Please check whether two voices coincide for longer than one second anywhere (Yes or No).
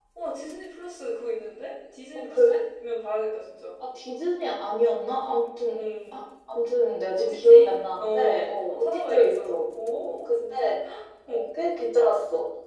Yes